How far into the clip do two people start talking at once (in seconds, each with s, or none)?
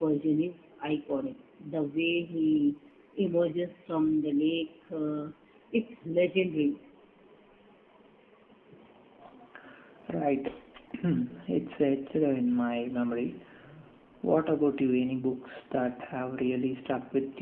none